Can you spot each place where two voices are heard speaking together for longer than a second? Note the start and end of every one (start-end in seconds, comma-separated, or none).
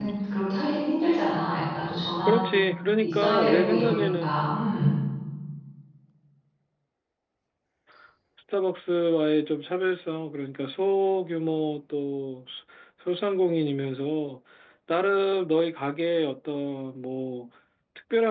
3.0-4.3